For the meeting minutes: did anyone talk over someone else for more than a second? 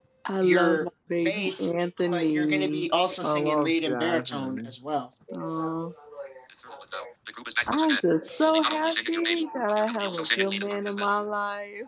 Yes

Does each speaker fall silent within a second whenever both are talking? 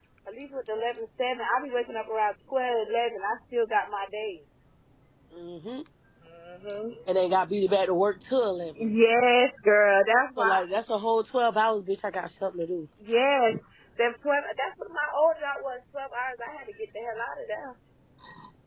Yes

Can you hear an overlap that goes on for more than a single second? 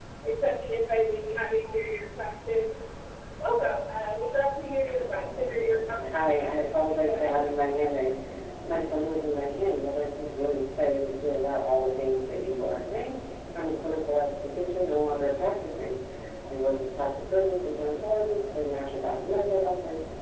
Yes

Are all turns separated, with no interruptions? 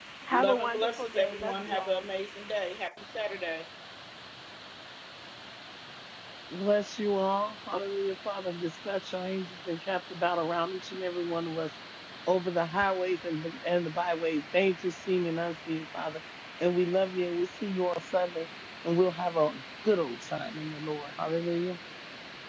No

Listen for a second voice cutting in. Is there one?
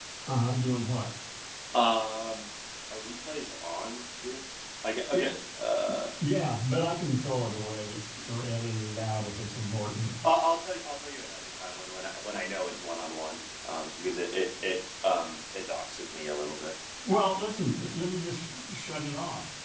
No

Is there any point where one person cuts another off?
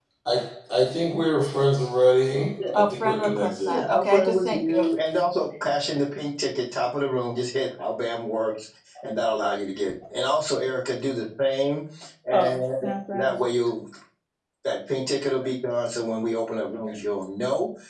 Yes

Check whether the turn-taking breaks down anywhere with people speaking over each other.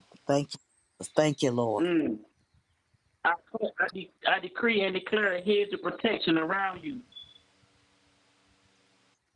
No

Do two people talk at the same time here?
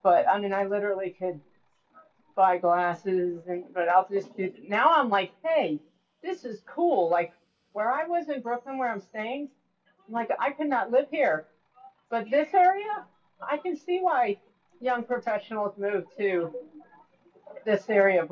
No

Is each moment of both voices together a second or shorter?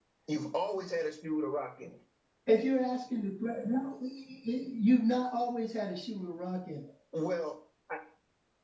Yes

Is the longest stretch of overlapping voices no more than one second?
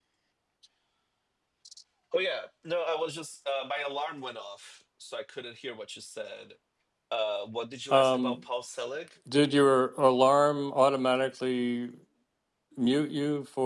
Yes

